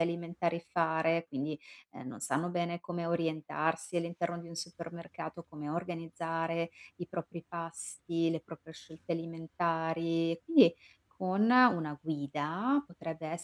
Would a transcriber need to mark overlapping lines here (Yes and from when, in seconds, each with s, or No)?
No